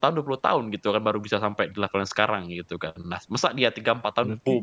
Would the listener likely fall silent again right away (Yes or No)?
Yes